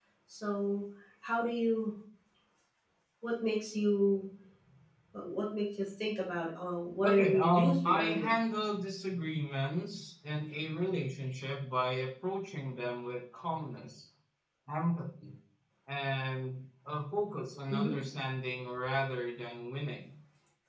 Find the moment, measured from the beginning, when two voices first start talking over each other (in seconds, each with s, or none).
7.0 s